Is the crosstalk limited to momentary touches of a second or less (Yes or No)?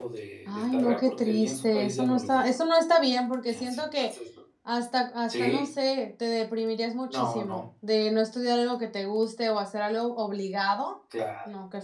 No